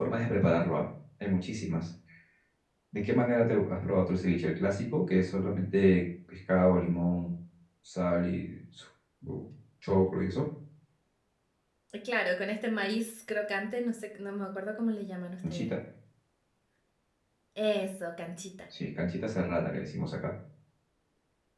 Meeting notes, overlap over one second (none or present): none